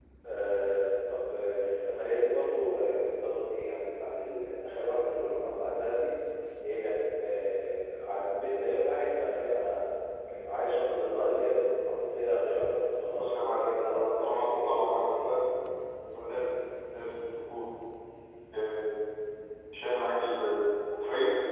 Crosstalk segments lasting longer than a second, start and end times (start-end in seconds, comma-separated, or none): 13.1-15.3